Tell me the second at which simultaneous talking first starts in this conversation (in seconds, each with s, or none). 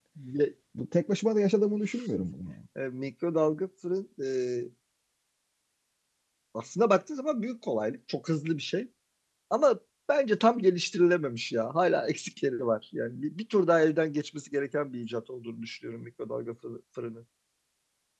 none